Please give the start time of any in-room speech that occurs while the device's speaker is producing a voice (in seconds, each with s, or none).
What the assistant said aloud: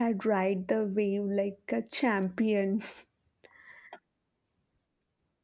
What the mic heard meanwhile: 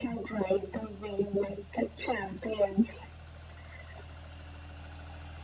none